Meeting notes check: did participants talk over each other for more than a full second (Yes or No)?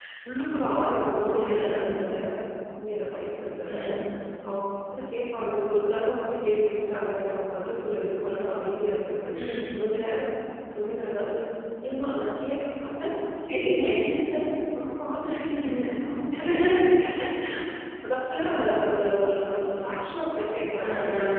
No